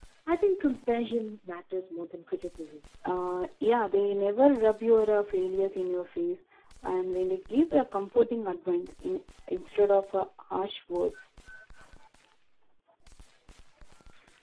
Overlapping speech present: No

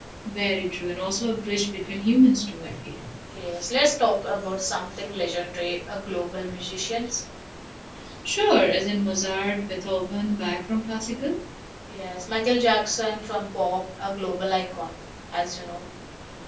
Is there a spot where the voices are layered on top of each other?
No

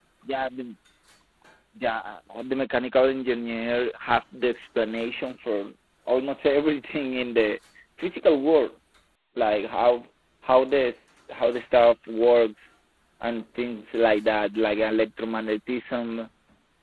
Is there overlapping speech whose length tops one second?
No

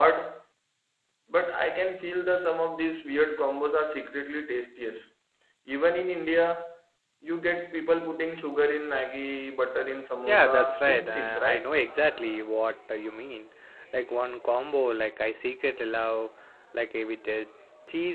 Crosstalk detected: Yes, from 10.2 s

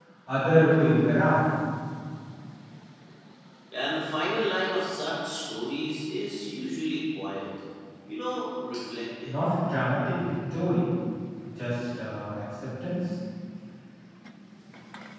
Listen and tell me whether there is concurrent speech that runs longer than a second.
No

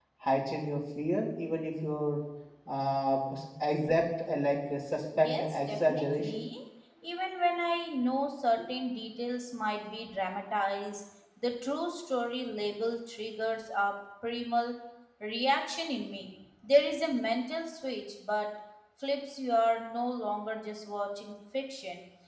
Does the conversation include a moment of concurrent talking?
Yes, from 5.2 s

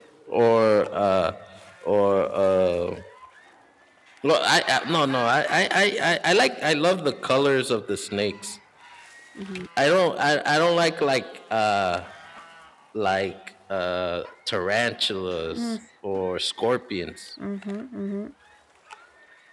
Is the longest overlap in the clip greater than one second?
No

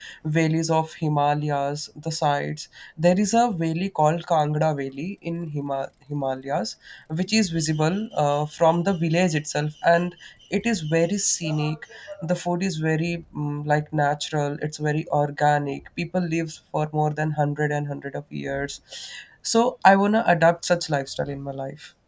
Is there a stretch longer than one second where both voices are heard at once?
No

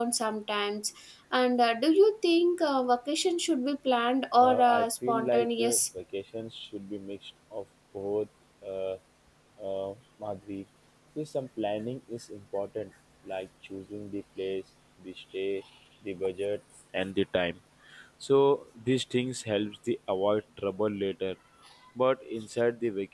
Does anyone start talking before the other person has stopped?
Yes, from 4.4 s

